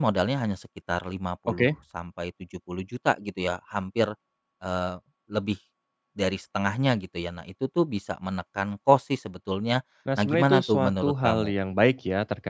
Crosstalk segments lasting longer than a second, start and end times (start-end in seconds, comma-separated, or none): 10.2-11.5